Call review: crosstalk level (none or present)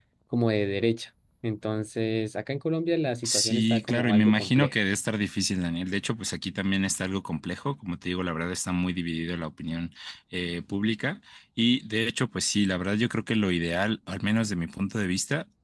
present